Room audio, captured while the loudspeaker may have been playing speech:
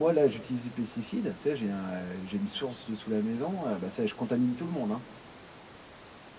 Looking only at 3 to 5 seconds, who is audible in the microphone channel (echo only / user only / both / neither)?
user only